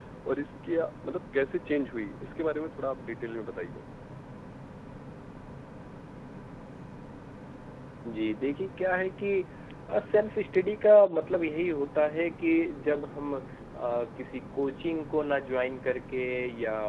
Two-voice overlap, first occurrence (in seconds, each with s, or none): none